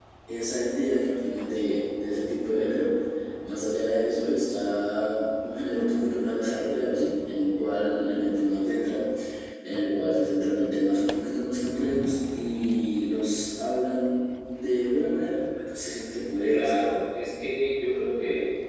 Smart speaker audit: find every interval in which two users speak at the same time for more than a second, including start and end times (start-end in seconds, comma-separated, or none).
none